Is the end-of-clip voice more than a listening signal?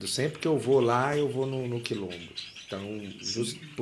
No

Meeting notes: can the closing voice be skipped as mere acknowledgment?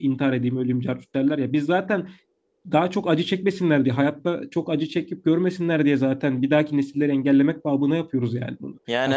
Yes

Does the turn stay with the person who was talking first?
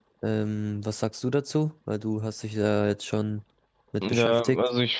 No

